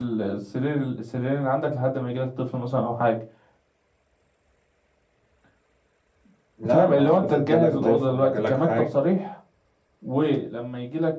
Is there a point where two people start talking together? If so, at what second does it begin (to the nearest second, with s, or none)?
7 s